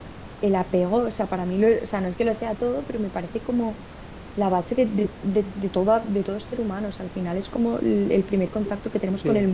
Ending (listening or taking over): taking over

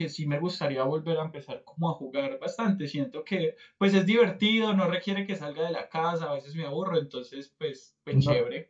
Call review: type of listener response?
taking over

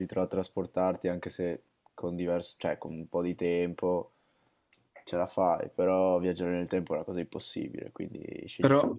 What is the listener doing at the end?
taking over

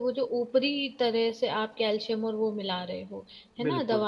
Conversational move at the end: listening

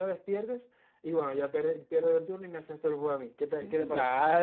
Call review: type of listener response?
taking over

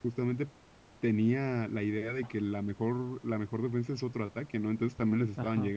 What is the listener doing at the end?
taking over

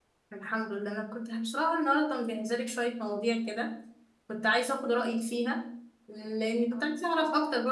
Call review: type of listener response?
listening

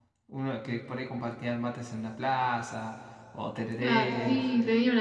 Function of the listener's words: taking over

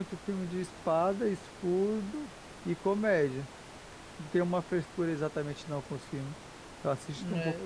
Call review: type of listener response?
taking over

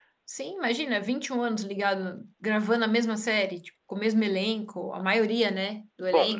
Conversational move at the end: taking over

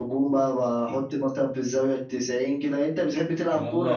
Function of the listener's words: taking over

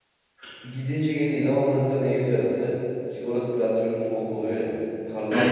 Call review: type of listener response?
listening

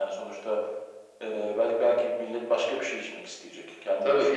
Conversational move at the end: taking over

